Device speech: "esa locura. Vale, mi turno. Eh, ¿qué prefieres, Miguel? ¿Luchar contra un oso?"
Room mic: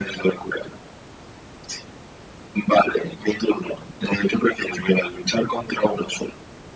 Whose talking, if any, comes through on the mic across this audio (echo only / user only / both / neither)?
echo only